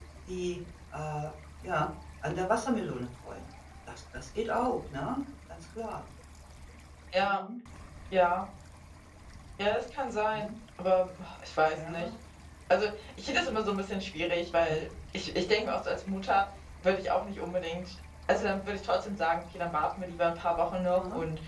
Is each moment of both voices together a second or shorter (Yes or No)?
Yes